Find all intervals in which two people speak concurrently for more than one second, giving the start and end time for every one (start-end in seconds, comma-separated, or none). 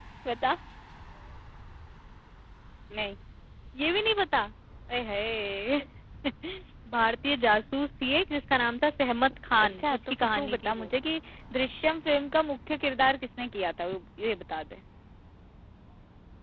9.6-10.9